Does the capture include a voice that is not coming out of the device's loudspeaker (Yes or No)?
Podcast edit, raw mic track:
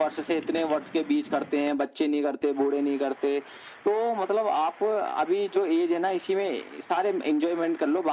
No